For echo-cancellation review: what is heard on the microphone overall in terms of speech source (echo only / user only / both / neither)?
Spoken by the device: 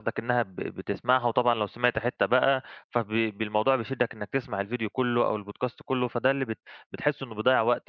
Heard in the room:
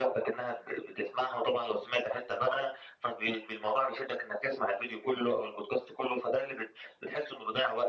echo only